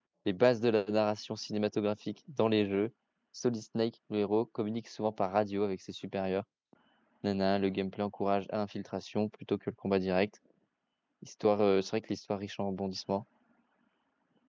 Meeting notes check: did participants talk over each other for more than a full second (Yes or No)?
No